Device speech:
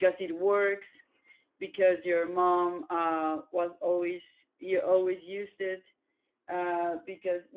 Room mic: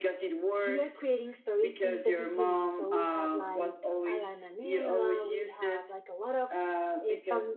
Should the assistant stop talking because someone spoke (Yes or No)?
Yes